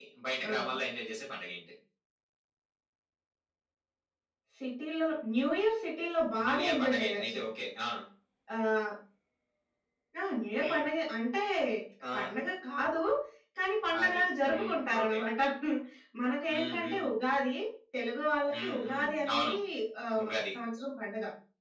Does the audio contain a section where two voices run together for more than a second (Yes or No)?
Yes